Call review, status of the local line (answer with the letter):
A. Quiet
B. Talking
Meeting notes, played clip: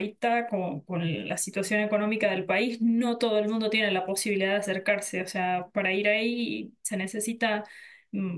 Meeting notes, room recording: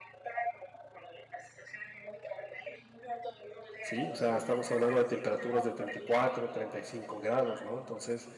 B